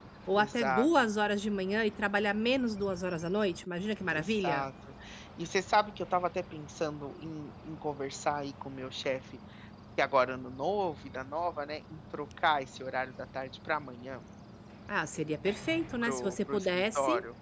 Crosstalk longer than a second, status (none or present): present